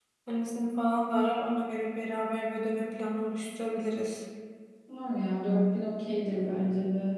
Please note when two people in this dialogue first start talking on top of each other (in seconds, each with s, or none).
none